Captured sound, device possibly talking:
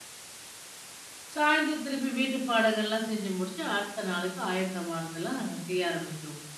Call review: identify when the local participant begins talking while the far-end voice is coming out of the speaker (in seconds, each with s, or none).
1.4 s